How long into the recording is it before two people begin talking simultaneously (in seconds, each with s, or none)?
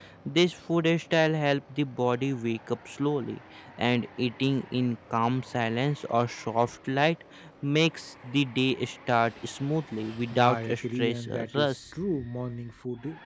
10.3 s